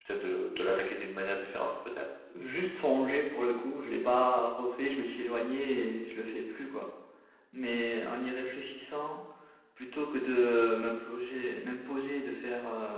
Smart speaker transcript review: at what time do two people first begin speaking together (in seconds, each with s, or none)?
none